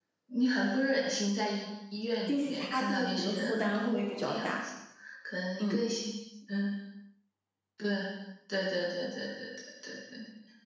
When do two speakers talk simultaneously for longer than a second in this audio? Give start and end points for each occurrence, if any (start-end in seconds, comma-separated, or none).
2.3-4.6